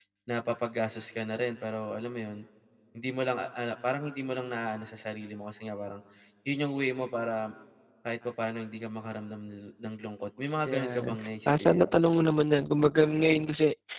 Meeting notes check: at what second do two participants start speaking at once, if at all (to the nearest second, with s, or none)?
11 s